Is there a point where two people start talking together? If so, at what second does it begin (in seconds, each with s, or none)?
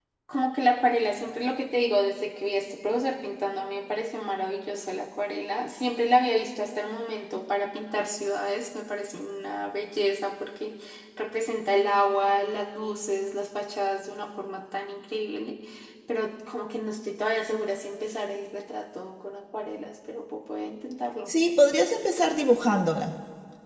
none